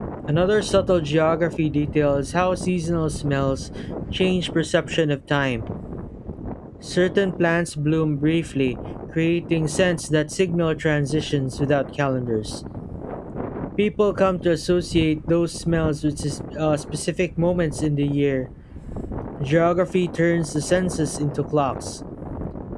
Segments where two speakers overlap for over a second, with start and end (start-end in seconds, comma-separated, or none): none